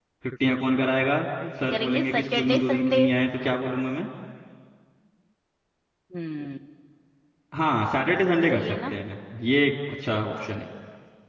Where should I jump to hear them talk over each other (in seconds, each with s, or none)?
1.6 s